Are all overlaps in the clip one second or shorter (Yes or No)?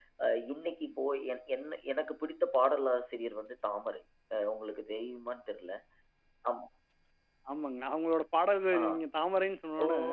Yes